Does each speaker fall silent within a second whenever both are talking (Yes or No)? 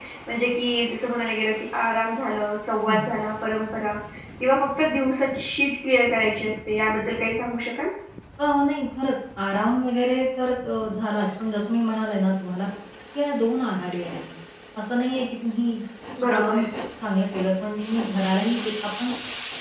Yes